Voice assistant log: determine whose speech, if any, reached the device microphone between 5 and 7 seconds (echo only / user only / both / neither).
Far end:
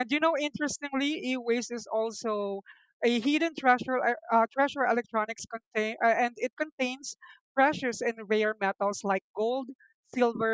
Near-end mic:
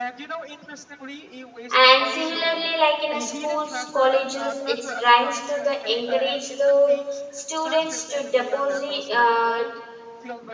both